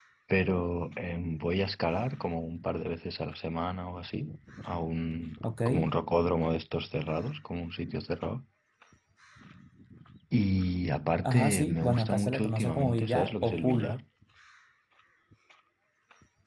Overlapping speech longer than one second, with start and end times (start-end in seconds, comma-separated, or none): 11.2-14.0